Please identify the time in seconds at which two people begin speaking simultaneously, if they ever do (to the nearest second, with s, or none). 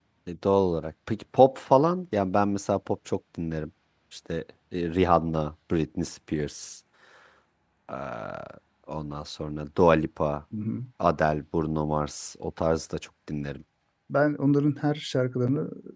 none